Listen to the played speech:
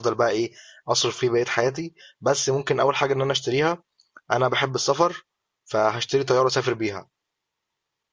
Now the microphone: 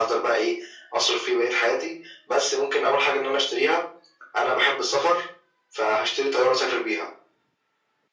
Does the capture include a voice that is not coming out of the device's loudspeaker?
No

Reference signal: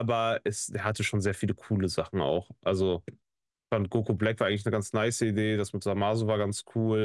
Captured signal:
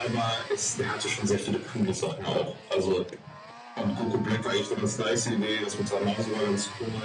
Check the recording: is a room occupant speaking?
No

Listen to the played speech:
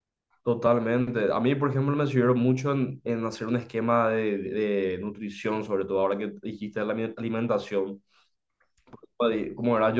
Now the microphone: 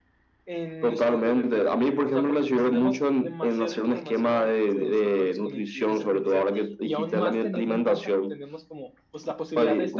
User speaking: Yes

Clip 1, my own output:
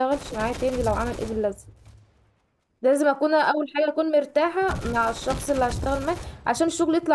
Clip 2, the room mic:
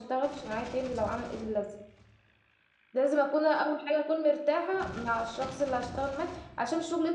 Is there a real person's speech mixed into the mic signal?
No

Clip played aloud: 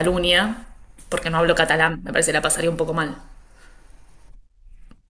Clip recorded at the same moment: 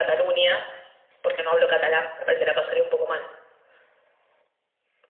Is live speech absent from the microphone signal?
Yes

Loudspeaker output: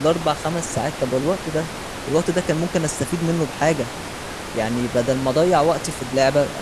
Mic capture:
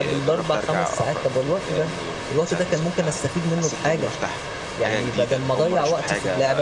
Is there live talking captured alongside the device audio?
Yes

